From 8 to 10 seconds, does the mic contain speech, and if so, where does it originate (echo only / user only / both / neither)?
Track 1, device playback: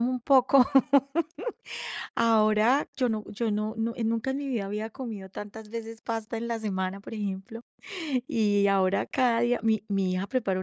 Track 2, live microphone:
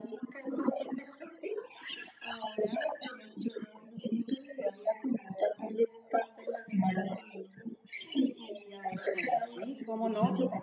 both